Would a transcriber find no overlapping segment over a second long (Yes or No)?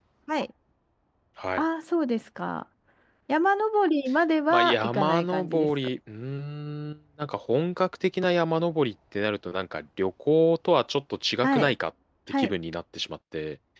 No